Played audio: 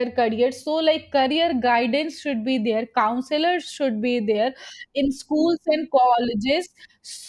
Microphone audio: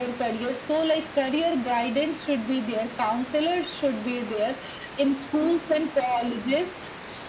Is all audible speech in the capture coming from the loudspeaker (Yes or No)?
Yes